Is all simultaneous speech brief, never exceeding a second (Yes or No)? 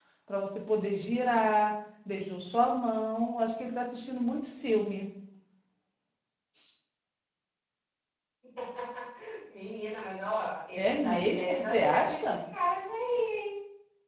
No